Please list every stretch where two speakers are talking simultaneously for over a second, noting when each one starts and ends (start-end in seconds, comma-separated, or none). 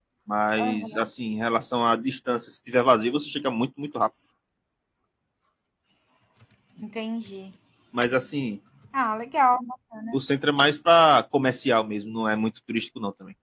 none